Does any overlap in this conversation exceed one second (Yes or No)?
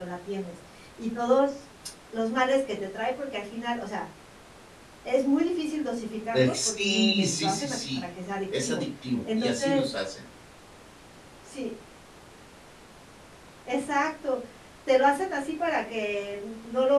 Yes